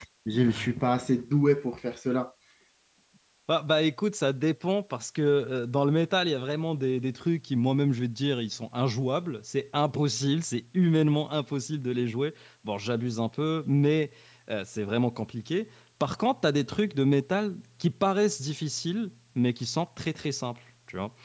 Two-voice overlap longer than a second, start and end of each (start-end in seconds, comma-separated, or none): none